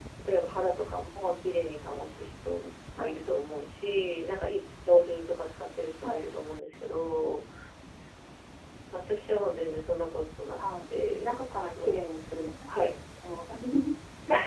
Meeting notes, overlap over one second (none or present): none